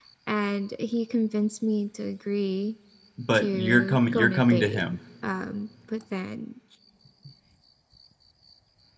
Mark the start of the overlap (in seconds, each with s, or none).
3.3 s